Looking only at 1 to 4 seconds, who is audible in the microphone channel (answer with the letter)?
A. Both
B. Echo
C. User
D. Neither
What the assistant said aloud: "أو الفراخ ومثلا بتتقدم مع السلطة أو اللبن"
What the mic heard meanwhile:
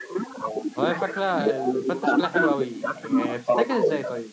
A